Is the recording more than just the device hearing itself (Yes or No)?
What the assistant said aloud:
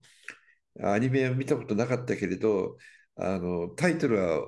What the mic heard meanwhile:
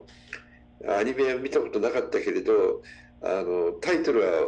No